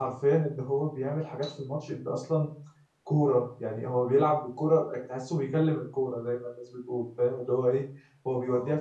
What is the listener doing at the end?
listening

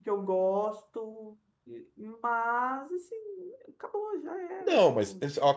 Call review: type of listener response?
taking over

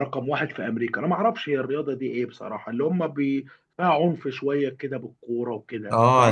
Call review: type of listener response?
taking over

